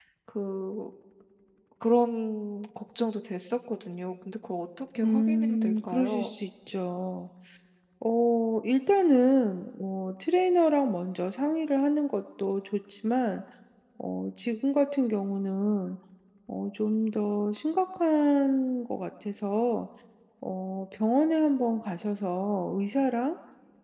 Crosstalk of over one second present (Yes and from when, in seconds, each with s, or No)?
Yes, from 5.0 s